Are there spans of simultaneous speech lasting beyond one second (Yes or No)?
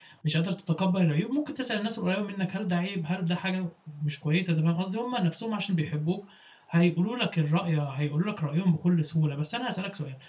No